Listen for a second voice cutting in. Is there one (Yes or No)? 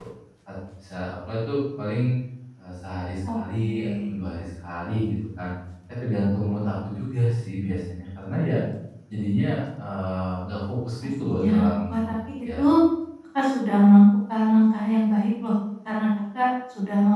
Yes